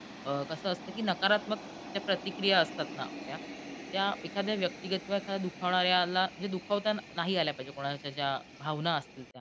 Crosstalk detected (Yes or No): No